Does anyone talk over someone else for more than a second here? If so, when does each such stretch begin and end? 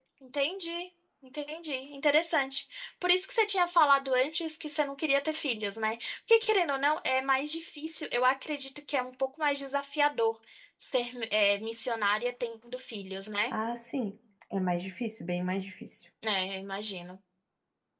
none

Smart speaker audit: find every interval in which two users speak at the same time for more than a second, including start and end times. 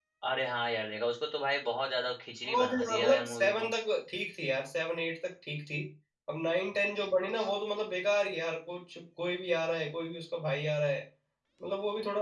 2.4-3.7

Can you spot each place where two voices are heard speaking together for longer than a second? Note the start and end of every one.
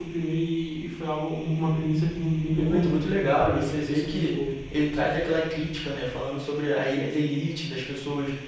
2.5-4.3

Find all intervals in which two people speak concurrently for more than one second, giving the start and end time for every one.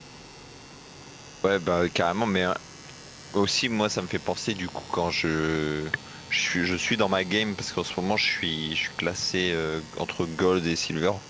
none

